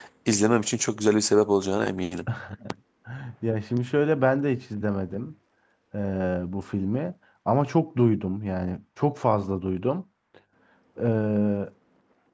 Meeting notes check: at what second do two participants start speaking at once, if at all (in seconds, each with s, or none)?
none